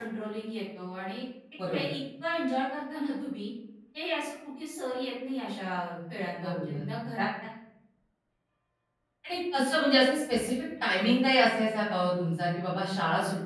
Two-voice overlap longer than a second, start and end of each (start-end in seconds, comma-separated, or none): none